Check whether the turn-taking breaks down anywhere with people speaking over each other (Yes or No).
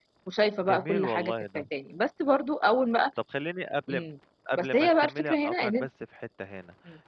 Yes